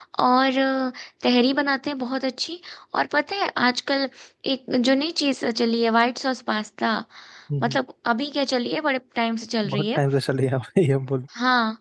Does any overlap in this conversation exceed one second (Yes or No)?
No